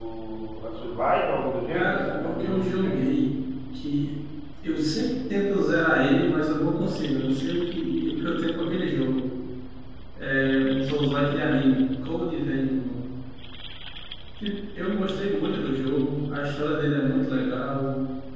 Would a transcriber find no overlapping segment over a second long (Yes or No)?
No